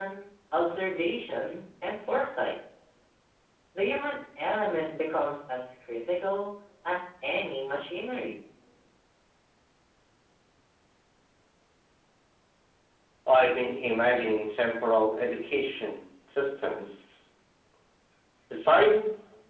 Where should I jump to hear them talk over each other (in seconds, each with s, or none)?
none